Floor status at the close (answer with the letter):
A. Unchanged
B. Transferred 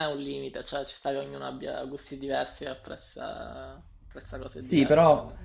B